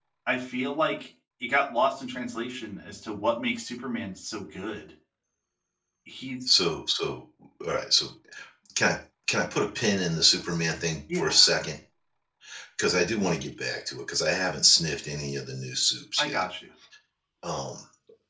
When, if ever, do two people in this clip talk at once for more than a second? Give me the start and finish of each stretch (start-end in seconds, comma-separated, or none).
none